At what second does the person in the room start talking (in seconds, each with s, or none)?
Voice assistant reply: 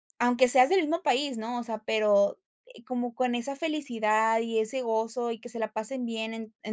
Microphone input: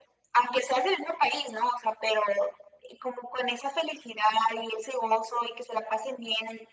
none